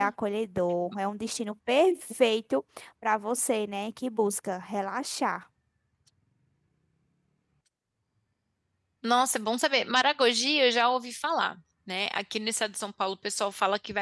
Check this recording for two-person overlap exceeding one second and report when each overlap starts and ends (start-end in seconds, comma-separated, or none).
none